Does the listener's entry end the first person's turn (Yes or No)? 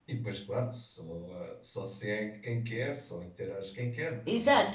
Yes